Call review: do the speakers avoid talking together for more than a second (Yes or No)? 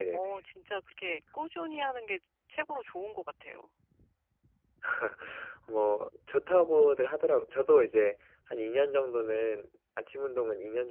Yes